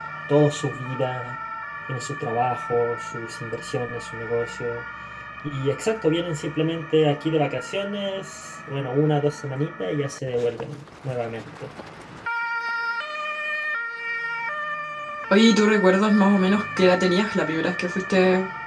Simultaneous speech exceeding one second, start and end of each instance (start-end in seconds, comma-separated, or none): none